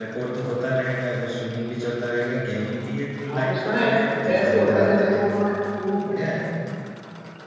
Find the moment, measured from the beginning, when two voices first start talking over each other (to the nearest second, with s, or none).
3 s